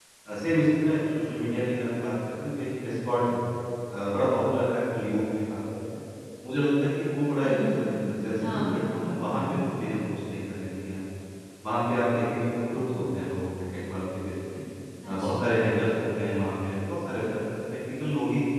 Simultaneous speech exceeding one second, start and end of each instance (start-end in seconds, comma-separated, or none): 8.4-9.7